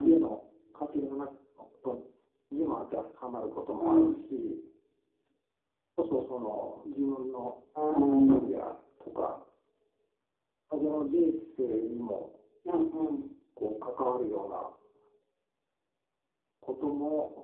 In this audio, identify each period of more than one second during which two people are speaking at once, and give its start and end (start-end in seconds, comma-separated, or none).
none